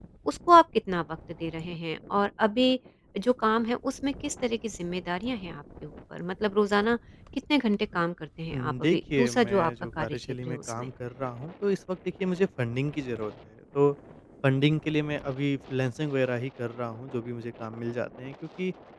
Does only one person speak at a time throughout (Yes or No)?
No